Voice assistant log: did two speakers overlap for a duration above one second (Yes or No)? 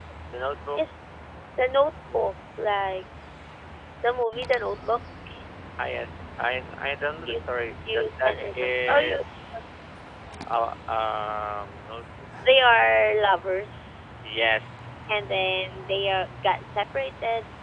Yes